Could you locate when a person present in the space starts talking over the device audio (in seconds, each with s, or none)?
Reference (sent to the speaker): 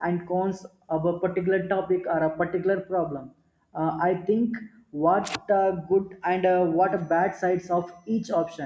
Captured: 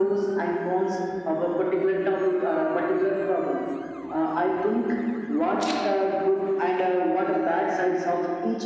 none